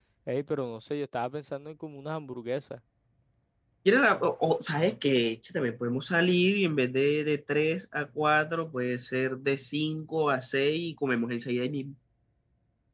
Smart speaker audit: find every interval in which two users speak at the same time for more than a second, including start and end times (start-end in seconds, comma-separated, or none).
none